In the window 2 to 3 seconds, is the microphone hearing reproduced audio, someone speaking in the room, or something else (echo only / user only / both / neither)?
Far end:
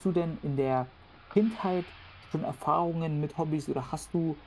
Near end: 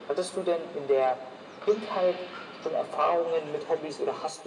echo only